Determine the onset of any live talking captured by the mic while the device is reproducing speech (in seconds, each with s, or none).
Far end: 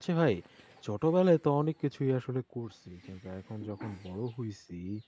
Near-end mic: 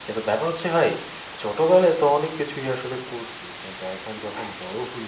none